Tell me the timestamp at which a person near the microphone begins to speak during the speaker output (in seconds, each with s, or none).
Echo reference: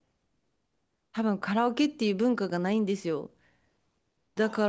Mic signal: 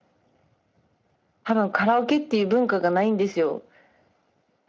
none